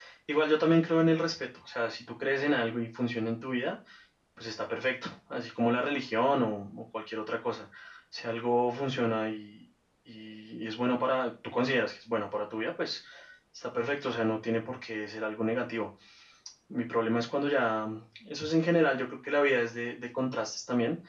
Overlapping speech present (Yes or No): No